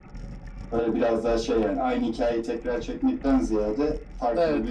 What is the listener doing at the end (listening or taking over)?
listening